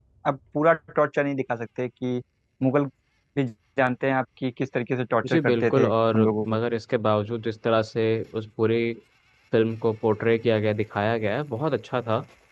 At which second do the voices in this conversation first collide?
5.2 s

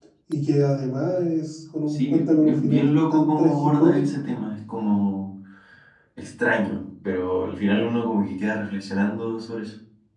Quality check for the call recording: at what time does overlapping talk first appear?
1.9 s

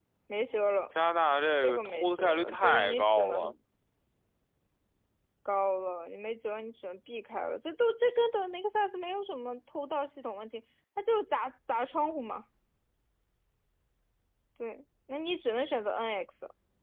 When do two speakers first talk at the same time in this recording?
1.6 s

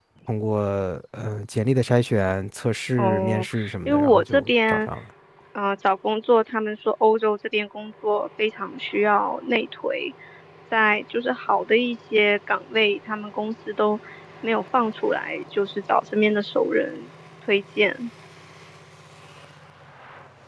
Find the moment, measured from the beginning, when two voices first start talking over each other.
3.0 s

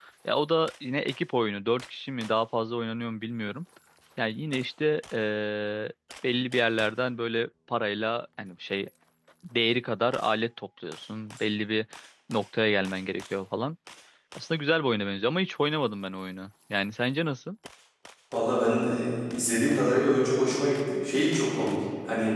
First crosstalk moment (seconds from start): none

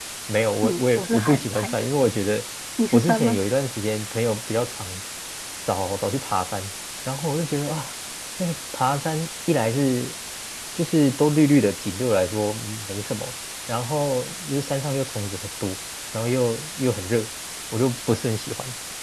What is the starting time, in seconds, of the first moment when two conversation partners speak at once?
0.6 s

